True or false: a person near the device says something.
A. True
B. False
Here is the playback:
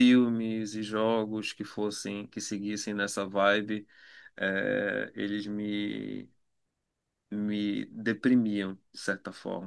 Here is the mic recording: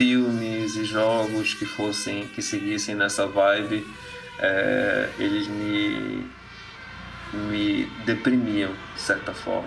B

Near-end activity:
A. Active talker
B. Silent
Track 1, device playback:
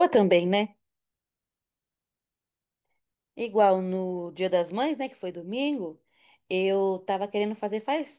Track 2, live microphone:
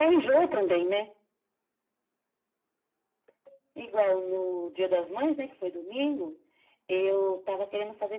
B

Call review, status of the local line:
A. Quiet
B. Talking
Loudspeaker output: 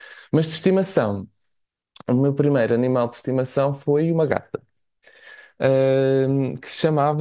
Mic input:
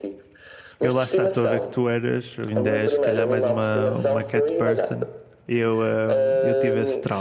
B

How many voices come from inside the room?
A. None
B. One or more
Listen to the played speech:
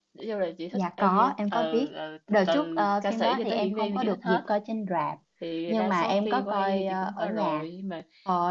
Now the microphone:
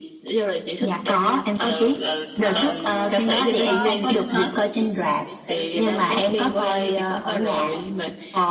B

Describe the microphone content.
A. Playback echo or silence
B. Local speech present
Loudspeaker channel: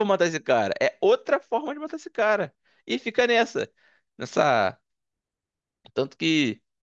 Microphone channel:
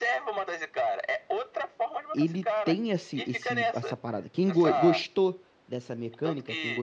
B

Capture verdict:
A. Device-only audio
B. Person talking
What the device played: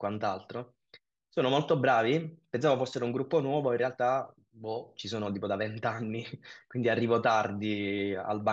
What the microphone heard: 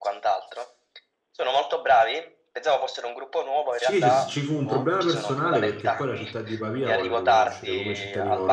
B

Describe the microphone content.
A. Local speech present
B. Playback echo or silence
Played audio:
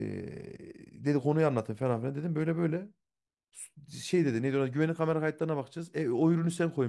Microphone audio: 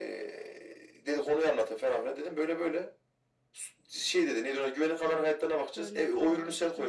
A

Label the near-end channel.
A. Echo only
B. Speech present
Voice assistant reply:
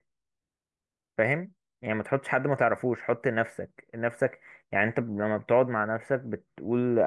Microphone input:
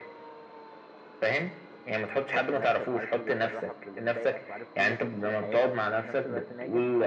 B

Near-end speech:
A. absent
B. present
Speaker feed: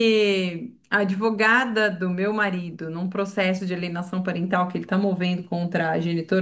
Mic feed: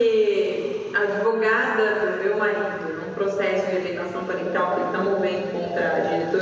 A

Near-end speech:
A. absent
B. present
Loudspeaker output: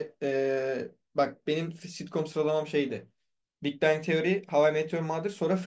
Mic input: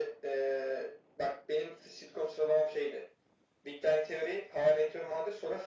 A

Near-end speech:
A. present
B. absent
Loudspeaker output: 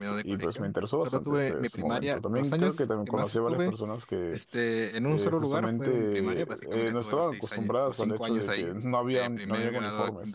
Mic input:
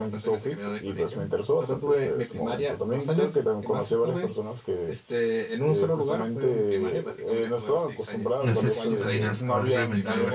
A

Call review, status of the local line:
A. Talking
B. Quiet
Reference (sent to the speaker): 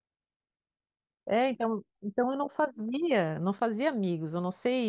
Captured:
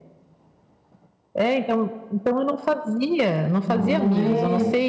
A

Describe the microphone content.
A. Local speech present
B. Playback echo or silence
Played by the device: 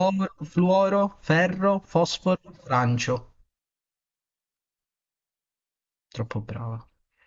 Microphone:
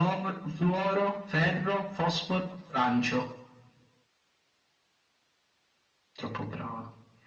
B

